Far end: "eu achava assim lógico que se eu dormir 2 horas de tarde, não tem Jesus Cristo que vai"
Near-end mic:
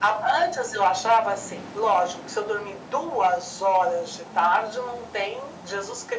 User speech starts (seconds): none

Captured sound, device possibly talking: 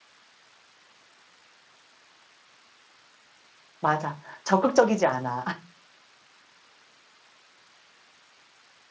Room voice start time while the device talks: 3.8 s

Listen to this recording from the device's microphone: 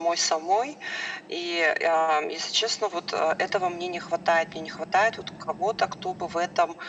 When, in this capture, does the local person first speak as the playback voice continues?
none

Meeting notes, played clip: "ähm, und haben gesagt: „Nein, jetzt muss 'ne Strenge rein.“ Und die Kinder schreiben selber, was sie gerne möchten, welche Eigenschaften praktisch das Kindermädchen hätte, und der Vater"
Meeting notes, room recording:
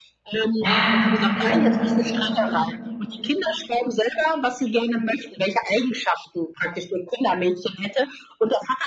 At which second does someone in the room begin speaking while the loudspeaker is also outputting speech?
0.6 s

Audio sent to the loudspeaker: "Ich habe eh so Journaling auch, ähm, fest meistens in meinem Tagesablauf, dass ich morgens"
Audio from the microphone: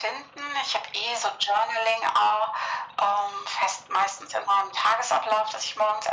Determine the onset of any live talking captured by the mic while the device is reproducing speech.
none

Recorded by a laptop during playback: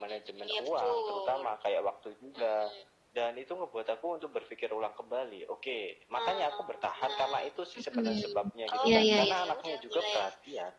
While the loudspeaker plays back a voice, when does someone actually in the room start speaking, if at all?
7.8 s

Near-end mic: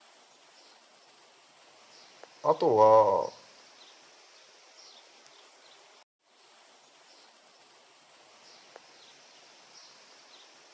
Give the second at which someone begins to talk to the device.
2.4 s

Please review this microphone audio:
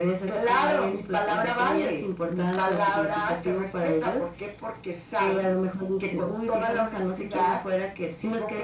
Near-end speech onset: none

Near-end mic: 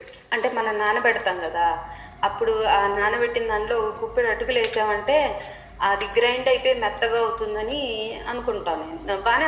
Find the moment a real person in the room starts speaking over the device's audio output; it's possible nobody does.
none

